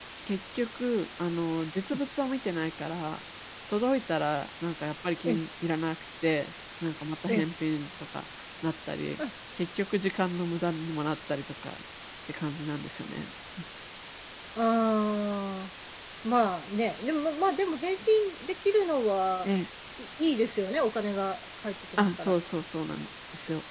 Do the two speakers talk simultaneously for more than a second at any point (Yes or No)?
No